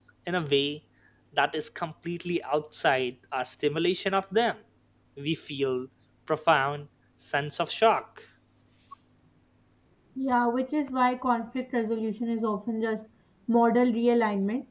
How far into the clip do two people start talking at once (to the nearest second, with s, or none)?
none